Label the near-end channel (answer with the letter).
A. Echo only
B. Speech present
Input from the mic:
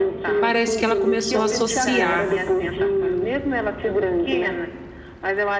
B